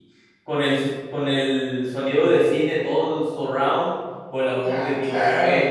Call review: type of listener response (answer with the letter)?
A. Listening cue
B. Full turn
A